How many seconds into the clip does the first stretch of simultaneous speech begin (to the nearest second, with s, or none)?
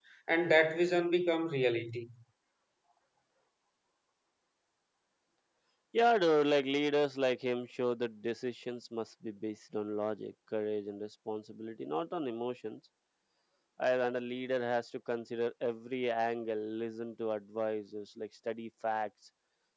none